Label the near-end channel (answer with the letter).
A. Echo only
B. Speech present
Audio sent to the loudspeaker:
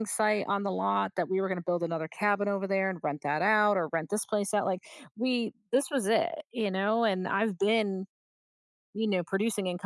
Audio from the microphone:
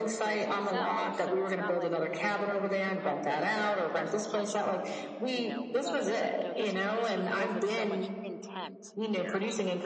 B